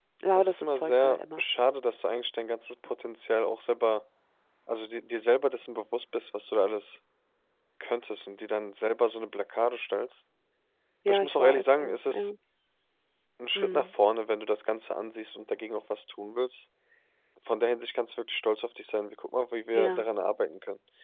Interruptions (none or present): present